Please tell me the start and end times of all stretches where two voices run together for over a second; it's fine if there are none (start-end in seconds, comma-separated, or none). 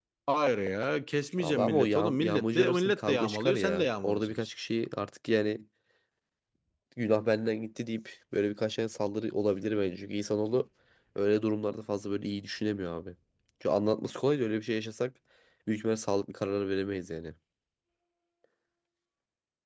1.4-4.5